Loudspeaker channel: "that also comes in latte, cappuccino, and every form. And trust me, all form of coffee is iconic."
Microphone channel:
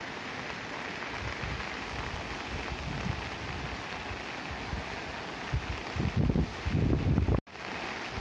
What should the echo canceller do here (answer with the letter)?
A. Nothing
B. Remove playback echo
A